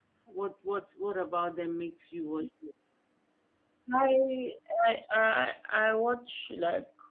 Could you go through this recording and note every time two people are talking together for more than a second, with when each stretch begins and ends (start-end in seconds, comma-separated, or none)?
none